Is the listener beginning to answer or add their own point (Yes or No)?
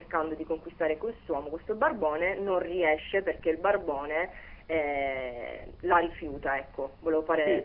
Yes